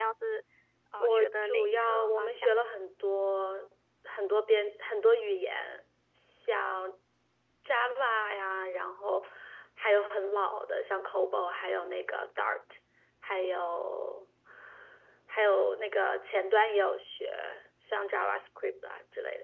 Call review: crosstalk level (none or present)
present